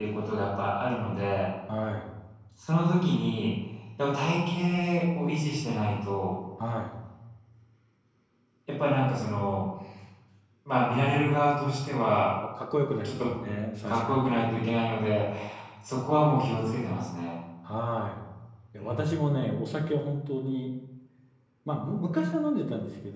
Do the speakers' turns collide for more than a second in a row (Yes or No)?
No